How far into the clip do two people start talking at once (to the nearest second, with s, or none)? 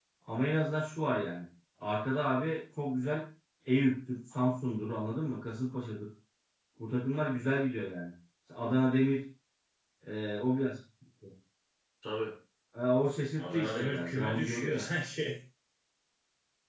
13 s